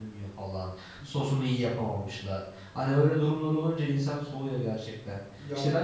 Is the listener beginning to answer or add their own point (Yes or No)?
No